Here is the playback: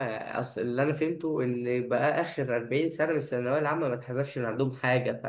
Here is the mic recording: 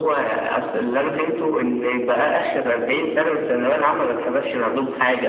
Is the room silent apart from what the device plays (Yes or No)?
Yes